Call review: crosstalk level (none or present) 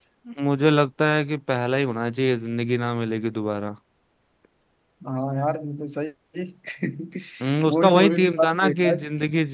present